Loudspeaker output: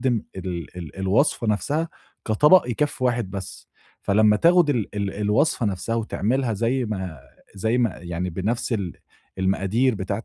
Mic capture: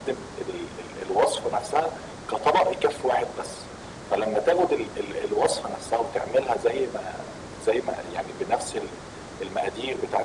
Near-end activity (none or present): none